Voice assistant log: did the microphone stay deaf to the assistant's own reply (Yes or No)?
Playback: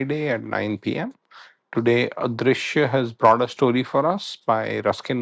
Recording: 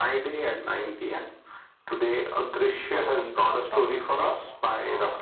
No